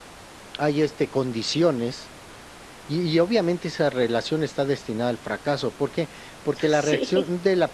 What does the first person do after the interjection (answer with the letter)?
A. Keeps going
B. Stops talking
A